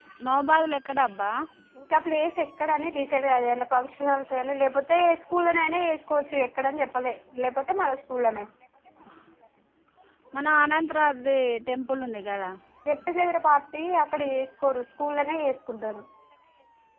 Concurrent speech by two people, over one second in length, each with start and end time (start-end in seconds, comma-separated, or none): none